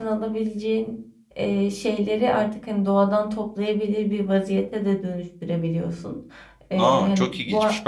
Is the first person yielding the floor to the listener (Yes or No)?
Yes